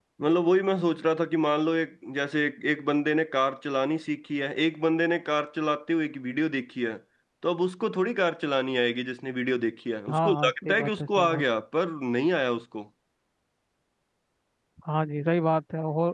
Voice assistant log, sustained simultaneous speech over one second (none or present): present